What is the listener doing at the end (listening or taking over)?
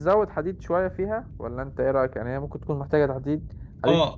taking over